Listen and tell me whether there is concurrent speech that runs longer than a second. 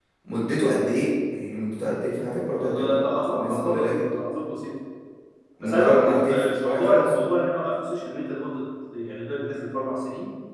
Yes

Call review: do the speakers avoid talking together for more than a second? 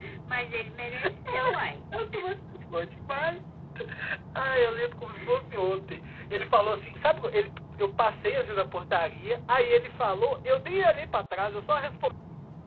Yes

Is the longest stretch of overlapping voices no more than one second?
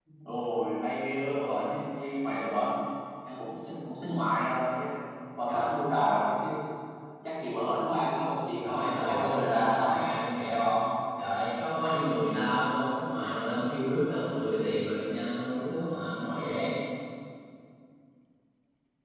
No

